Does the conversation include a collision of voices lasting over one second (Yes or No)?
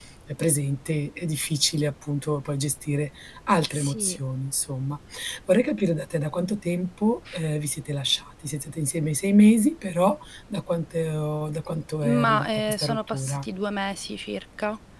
Yes